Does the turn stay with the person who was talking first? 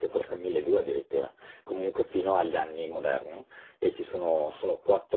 Yes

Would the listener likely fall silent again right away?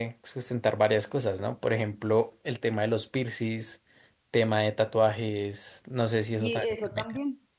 No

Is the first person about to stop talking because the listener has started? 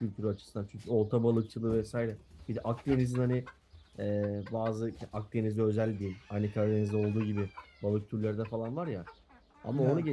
No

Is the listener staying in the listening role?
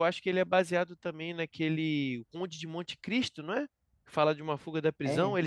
Yes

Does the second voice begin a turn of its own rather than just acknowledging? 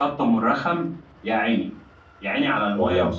No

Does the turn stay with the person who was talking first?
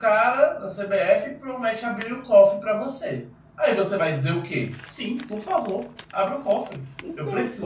Yes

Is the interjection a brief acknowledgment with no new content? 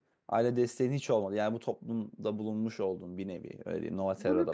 No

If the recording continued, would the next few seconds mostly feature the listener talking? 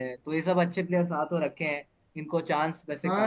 Yes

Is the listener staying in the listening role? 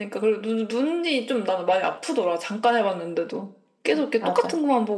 Yes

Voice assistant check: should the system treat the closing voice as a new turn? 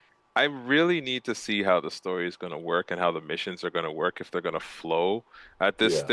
No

